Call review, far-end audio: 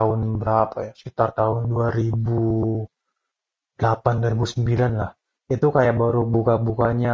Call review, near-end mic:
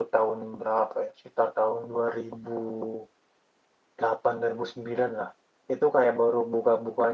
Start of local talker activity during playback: none

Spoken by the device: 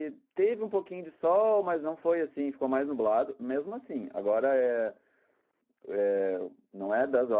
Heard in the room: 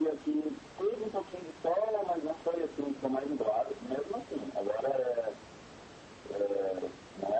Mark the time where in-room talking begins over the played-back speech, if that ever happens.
none

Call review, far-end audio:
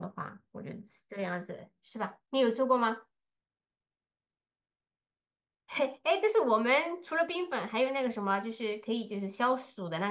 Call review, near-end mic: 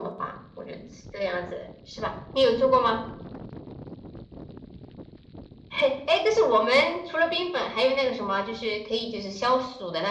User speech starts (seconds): none

